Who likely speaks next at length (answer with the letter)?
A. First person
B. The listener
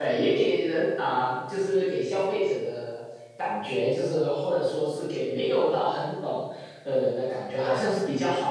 A